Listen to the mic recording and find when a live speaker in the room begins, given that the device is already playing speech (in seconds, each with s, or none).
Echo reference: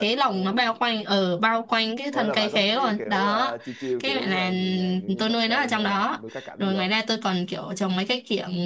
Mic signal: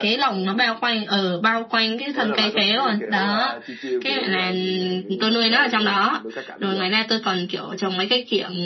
none